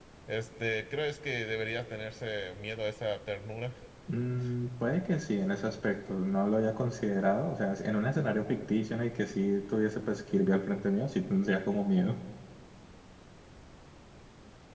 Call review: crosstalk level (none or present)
none